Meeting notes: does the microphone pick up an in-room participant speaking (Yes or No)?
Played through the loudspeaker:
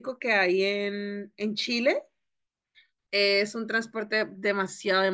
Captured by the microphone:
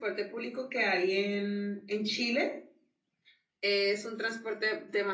No